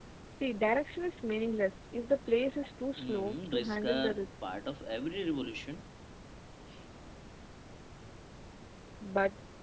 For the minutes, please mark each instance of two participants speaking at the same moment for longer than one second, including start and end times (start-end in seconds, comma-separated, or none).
3.0-4.3